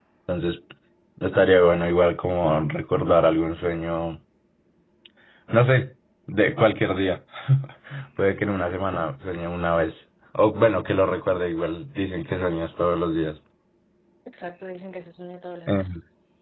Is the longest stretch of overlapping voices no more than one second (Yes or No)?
Yes